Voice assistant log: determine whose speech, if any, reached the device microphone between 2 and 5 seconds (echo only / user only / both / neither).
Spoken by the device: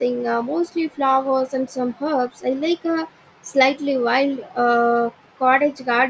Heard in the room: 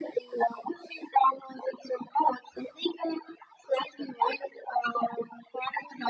echo only